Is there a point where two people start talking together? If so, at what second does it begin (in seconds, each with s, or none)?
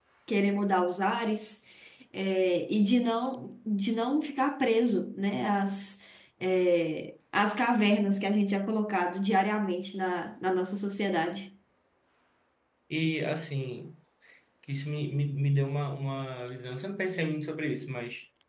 none